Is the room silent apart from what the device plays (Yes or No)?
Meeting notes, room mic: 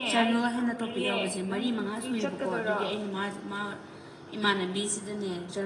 Yes